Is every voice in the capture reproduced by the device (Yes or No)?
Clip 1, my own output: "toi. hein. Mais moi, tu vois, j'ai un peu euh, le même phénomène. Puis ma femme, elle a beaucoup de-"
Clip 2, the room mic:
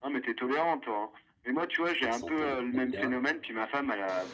No